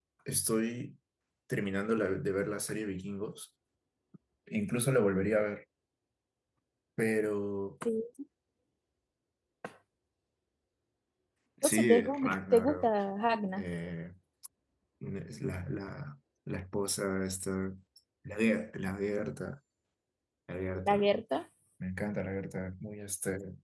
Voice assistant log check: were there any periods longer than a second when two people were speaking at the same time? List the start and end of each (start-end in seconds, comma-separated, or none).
11.6-12.9